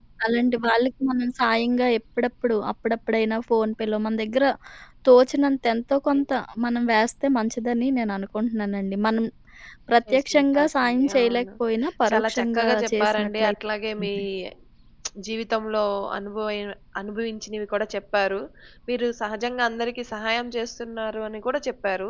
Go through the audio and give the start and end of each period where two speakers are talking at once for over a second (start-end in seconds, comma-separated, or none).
10.1-11.4, 12.1-13.5